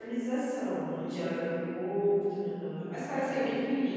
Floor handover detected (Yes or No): Yes